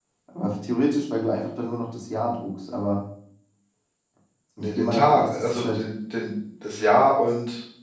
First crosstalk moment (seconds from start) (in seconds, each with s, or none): 4.6 s